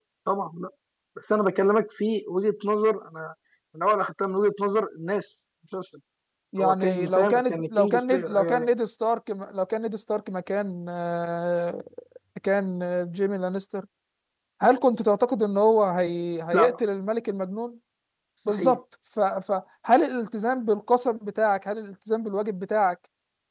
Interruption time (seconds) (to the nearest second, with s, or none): 7 s